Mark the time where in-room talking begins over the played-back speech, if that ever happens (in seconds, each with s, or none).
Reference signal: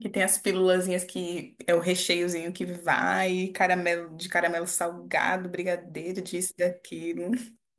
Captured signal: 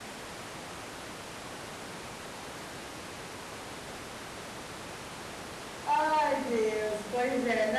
5.9 s